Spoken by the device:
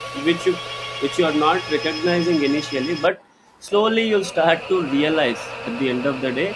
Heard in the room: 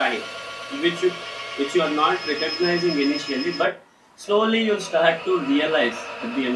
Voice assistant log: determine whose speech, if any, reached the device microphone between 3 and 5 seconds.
echo only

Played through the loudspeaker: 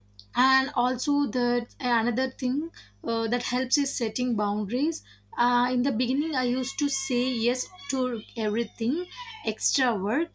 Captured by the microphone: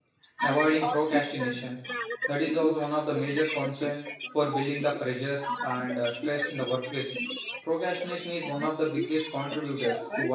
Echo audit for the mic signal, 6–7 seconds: both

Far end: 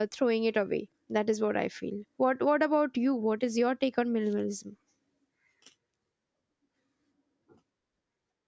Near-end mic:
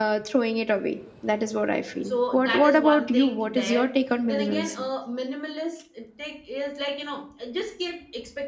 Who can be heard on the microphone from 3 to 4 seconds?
both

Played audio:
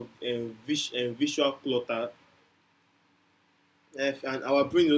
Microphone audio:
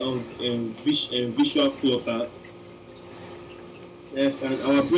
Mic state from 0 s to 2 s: echo only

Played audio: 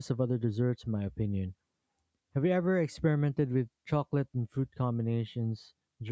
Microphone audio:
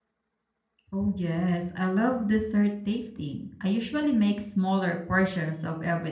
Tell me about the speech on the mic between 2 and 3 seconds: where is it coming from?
user only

